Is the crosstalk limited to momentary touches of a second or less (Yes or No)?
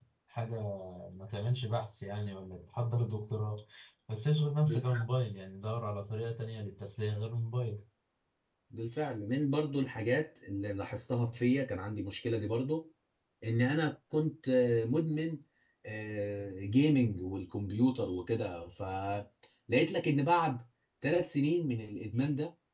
Yes